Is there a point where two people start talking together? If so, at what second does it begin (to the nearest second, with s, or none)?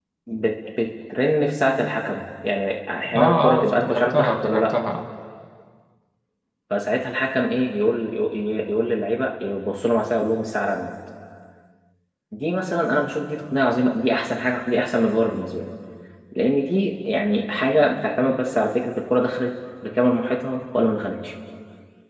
3 s